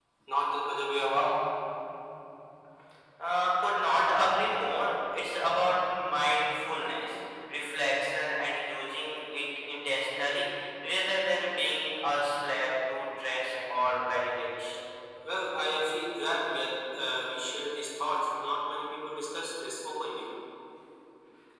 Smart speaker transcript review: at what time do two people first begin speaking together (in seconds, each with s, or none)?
none